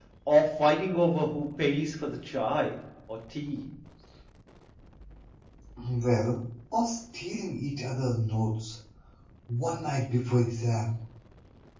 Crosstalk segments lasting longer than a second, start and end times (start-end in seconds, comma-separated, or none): none